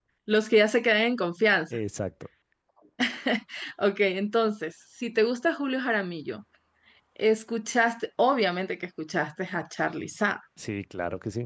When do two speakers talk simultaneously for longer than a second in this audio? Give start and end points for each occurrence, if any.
none

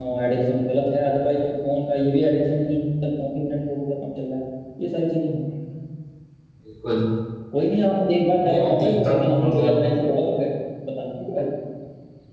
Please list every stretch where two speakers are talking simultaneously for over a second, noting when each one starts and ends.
8.4-9.8

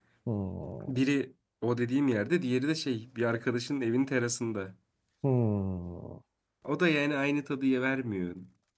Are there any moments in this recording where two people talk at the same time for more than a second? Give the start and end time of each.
none

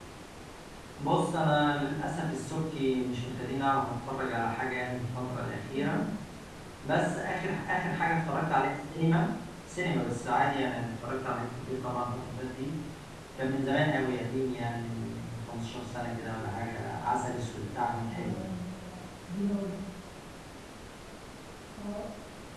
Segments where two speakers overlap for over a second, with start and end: none

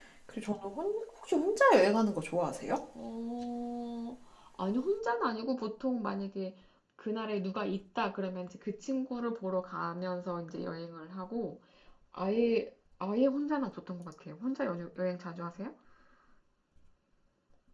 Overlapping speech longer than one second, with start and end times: none

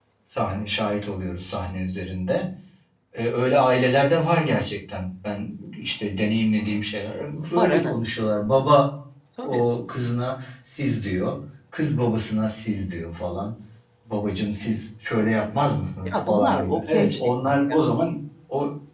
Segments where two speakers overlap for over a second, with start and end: 16.1-17.9

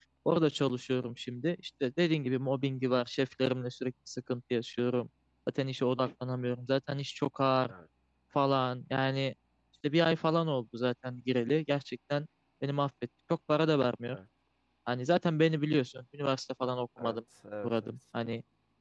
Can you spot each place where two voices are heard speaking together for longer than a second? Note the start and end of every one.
none

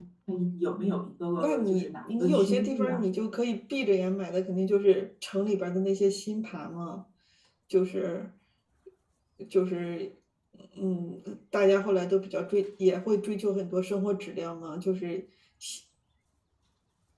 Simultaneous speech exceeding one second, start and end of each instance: 1.4-3.0

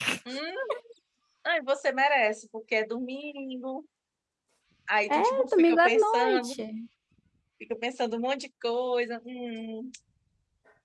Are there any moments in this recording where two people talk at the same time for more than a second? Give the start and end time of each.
5.1-6.6

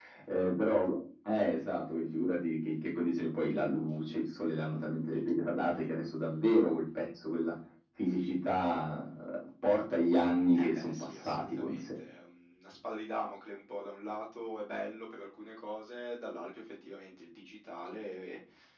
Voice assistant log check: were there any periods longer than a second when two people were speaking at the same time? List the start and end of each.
10.6-11.8

